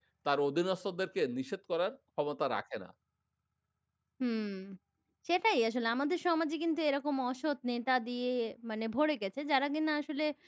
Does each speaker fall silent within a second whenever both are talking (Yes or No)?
Yes